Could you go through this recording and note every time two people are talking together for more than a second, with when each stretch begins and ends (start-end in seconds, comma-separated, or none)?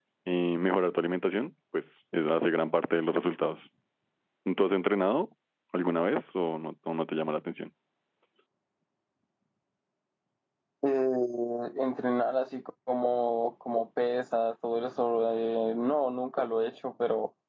none